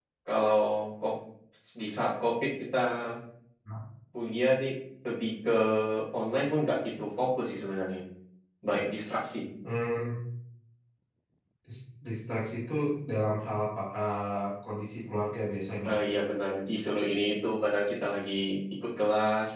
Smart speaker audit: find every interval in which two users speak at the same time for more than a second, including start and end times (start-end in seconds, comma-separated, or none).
none